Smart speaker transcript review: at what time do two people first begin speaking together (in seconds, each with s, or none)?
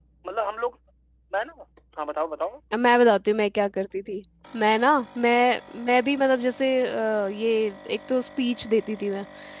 none